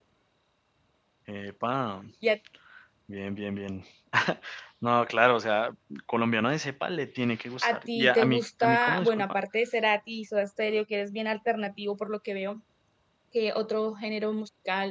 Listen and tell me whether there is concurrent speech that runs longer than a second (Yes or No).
Yes